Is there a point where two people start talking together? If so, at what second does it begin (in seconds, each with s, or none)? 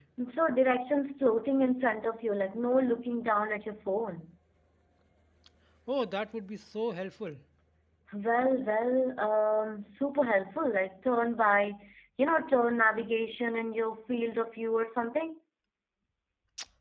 none